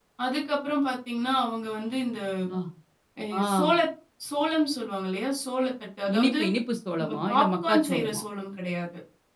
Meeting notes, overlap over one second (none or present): present